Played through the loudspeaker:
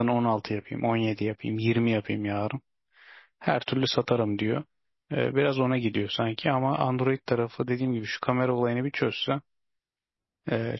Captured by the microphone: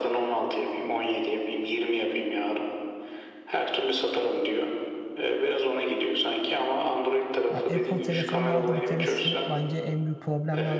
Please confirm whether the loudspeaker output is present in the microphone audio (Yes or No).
Yes